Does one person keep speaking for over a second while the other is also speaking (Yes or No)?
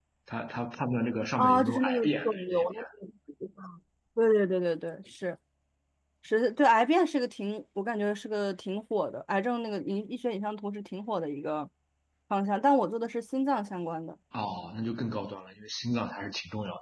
Yes